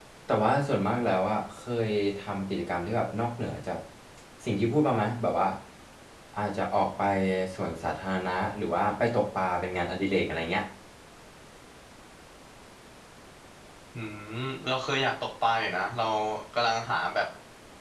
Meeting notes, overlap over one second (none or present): none